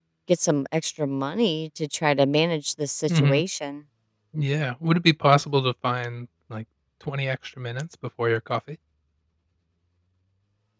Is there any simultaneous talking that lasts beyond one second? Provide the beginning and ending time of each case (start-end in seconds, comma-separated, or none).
none